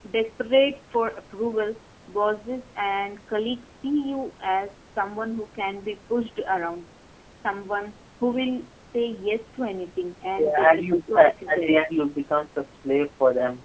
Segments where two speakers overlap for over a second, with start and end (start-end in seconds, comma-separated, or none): 10.4-11.7